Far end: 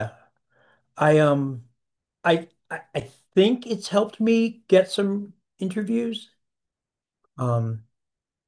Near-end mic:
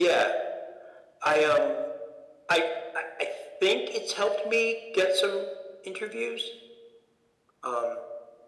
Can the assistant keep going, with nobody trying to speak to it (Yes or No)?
Yes